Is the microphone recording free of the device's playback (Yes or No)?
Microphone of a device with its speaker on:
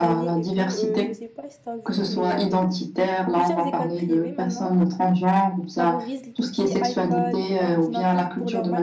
No